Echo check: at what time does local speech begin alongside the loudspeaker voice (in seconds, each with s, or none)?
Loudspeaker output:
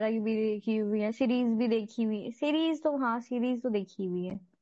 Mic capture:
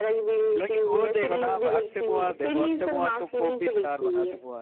0.6 s